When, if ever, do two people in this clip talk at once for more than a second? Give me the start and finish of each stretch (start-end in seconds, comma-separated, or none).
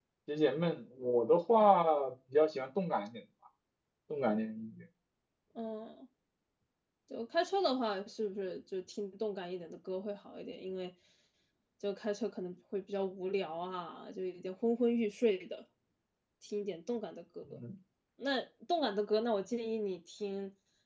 none